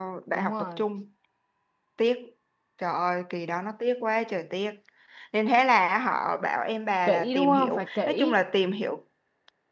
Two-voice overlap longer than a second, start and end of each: 7.1-8.3

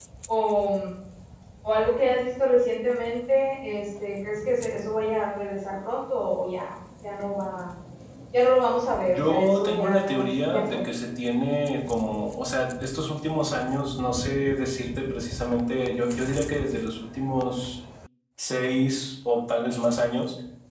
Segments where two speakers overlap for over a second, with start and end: 9.1-10.8

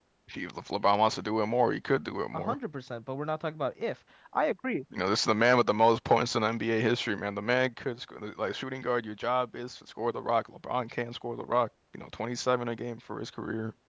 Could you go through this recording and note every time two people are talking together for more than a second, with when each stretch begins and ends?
none

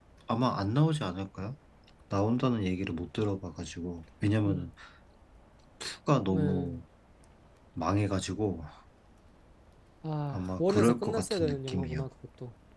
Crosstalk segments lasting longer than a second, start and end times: 10.3-12.1

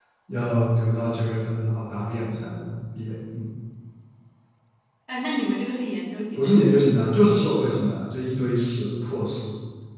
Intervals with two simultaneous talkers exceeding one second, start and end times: none

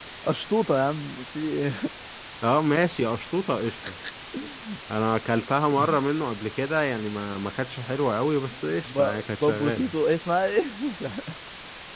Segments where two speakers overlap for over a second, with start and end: none

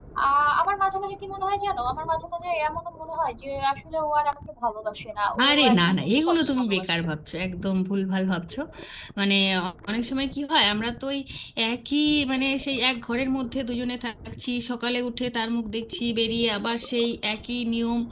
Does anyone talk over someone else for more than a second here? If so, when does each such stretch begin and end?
5.4-7.0

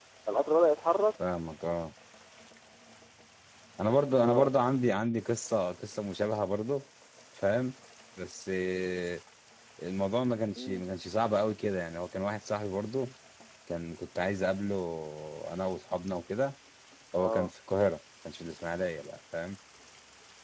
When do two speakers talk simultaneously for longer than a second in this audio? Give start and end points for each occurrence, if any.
none

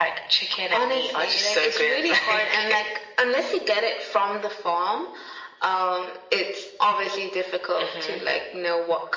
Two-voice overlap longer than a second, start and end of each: 0.7-2.8

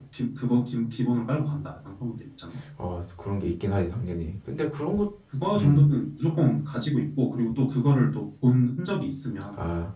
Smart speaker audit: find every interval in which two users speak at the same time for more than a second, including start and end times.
none

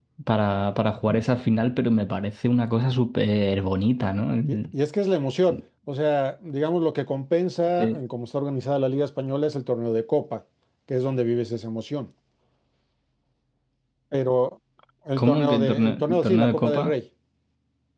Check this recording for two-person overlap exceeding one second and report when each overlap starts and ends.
15.2-16.9

